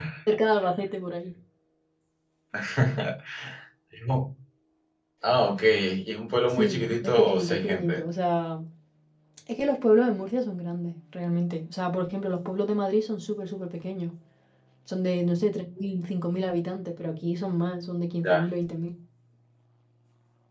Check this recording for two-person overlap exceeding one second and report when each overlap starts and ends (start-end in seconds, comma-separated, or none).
6.5-8.0